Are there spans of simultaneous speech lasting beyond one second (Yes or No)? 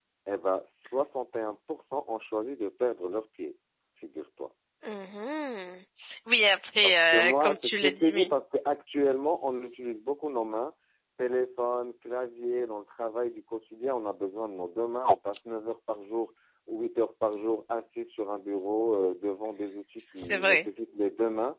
Yes